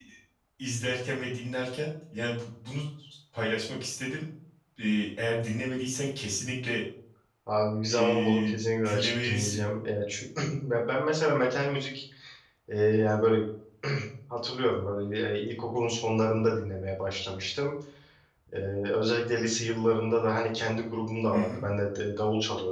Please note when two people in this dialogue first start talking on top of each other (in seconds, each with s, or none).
7.8 s